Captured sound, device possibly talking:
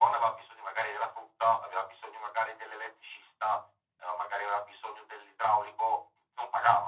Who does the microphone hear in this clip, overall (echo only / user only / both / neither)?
echo only